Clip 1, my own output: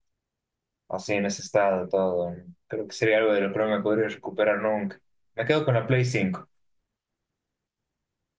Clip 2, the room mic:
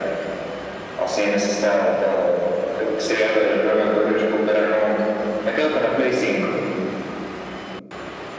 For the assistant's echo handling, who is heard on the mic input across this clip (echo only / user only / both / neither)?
echo only